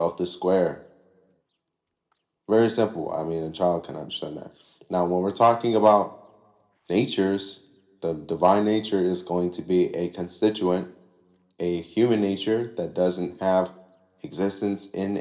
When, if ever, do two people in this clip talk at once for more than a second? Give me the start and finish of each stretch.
none

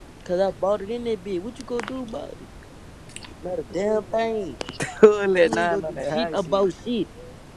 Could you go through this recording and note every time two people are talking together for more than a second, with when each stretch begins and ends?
5.4-6.7

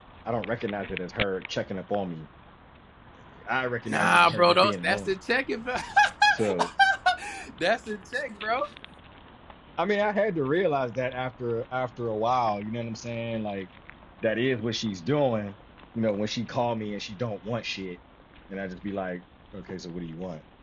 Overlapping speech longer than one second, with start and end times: 3.9-5.1

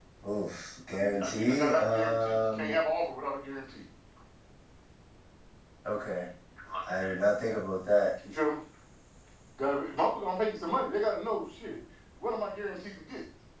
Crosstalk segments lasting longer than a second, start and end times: 0.9-2.8

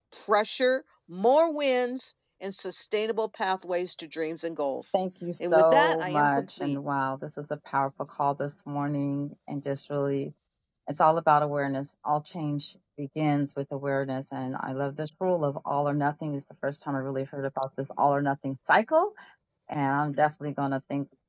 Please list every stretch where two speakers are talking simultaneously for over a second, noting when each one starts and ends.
5.4-6.8

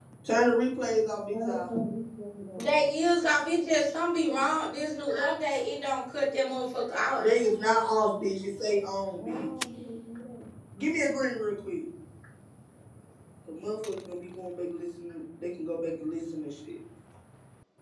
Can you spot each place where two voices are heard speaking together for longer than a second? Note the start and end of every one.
none

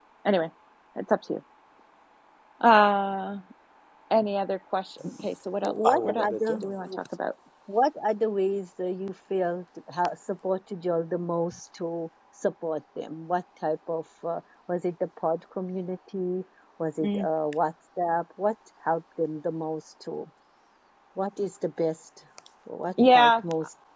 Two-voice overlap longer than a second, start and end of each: 5.6-6.8

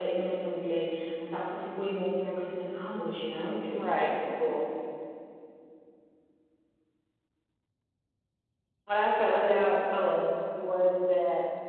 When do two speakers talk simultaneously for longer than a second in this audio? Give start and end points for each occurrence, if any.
none

